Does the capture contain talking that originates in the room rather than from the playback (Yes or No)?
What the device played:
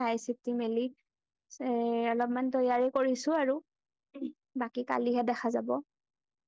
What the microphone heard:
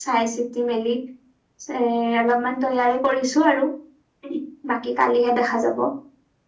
No